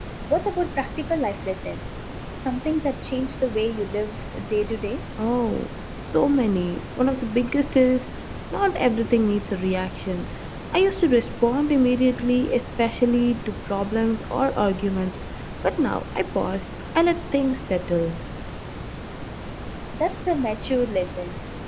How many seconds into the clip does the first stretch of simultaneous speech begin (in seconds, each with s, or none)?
none